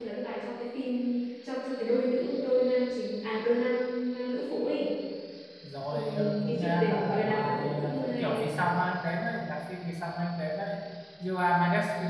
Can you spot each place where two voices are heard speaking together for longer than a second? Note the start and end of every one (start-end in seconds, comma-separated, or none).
5.9-8.6